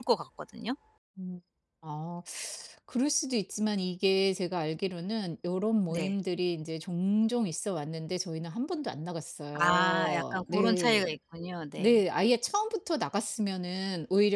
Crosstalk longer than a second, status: present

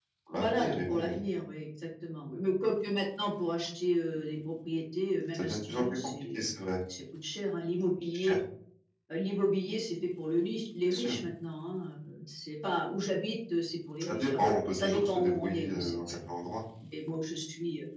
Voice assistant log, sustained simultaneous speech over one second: present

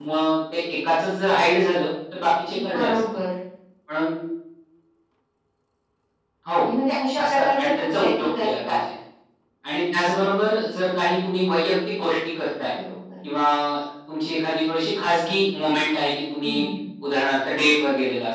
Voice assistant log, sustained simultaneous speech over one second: present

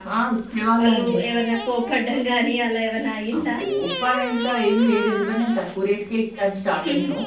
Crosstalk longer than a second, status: none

